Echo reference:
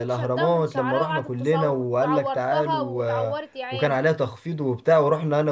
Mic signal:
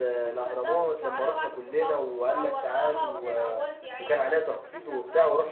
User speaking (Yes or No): Yes